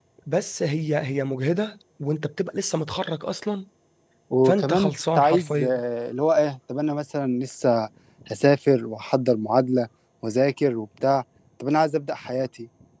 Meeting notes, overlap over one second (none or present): present